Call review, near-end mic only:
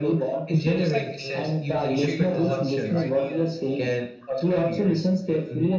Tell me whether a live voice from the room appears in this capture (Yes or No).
Yes